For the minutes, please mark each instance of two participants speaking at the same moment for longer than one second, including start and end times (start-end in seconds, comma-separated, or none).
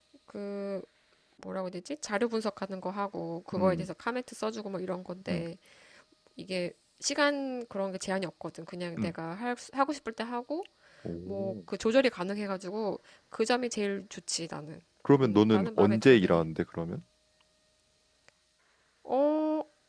15.2-16.4